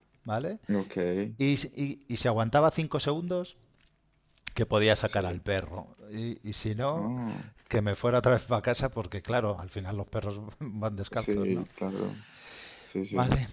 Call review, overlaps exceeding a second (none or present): none